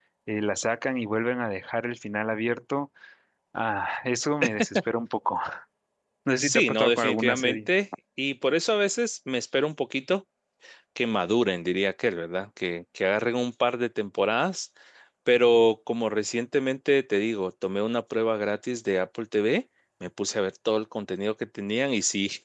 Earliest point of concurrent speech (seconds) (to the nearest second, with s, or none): 6 s